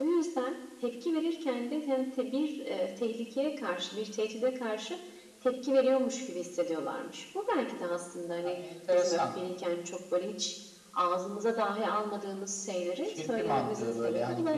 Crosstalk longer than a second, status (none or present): present